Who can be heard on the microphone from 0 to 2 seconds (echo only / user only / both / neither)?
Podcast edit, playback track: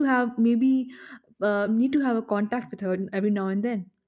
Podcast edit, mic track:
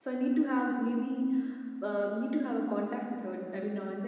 echo only